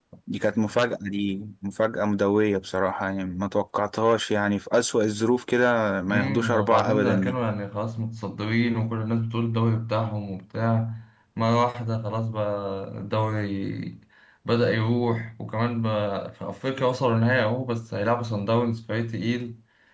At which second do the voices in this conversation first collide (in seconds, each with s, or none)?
6.1 s